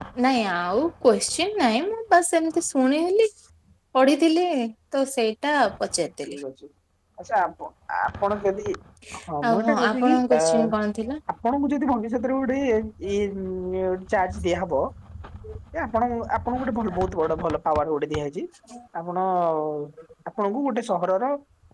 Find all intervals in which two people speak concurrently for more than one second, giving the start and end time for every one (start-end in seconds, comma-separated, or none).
9.5-10.7